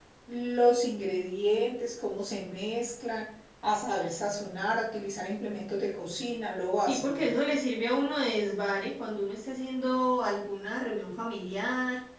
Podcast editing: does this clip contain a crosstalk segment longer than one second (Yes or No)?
No